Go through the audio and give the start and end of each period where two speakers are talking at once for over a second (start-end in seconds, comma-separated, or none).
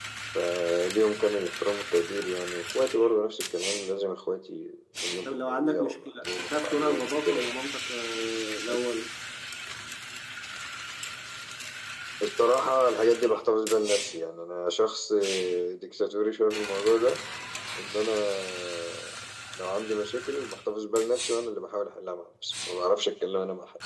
5.2-7.5